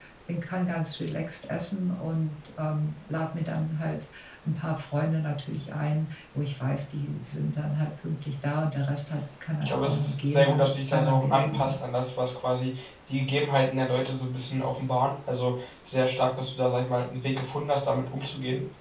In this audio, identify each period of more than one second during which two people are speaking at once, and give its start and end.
9.6-11.8

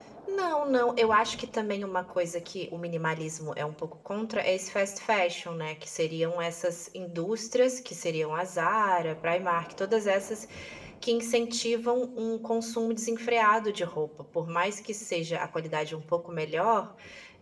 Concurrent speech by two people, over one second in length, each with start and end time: none

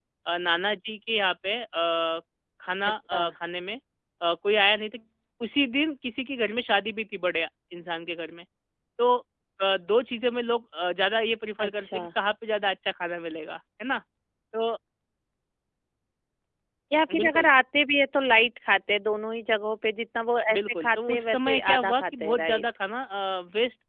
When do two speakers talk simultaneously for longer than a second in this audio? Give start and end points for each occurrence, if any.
20.5-22.6

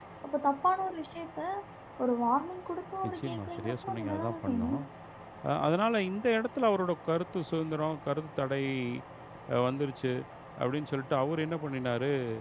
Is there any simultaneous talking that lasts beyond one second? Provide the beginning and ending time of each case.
3.0-4.8

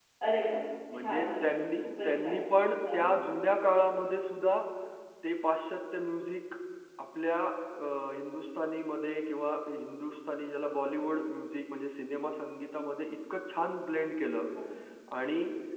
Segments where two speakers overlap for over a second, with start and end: 0.9-2.4

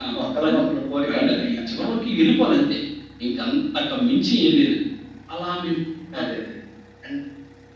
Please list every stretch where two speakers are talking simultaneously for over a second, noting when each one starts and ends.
none

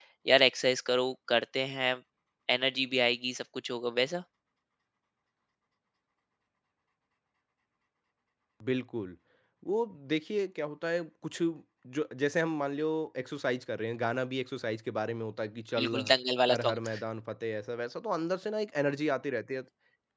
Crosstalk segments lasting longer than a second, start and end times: none

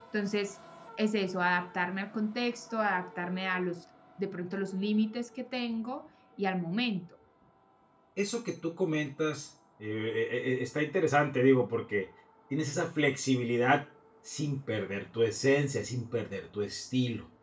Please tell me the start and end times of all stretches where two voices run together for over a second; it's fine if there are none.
none

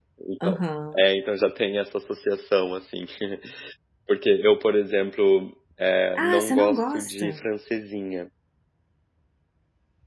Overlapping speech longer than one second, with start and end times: 6.2-7.4

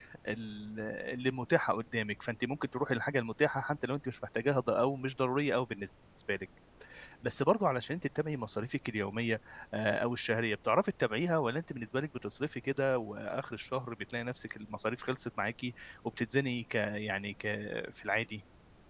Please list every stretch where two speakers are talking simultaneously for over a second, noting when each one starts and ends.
none

